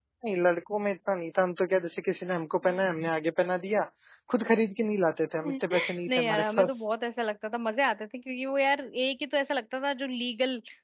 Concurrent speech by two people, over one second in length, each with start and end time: 5.4-6.8

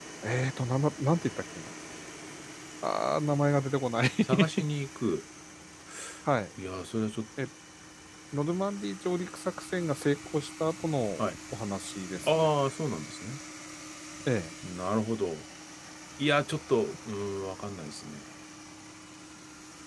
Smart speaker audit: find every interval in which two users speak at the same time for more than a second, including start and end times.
none

